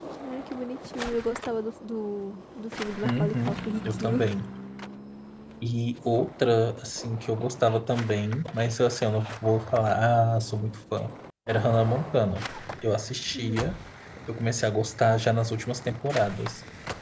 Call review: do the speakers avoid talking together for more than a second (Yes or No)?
No